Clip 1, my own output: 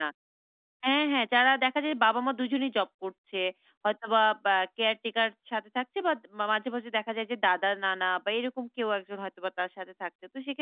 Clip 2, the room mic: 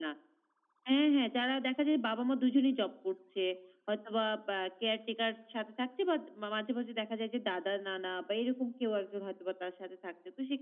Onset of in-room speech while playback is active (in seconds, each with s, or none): none